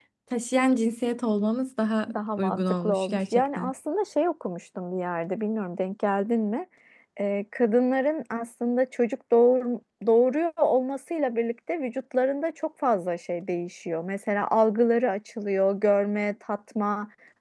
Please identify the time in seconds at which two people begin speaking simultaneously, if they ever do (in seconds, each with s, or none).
2.1 s